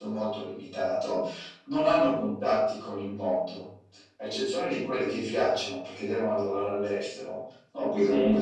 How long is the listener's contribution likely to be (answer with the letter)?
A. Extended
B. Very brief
B